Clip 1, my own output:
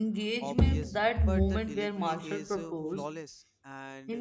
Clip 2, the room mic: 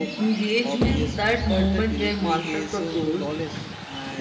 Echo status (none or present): present